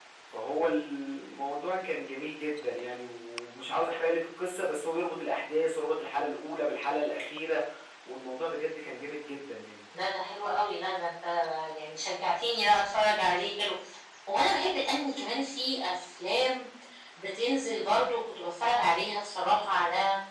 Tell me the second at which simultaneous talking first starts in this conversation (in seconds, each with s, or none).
none